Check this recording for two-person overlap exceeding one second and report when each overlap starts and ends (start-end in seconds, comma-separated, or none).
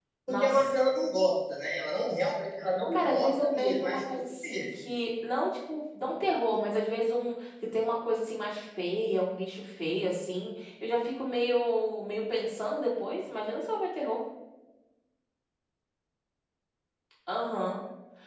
2.9-4.7